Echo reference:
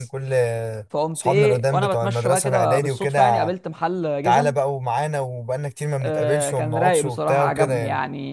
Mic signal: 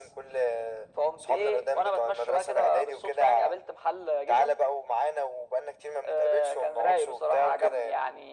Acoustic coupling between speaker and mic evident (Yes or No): Yes